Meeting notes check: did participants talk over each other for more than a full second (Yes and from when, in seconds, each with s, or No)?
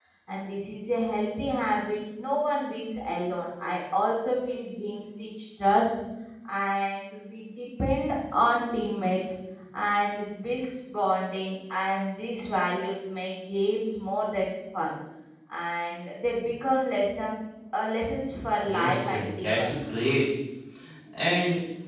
Yes, from 18.6 s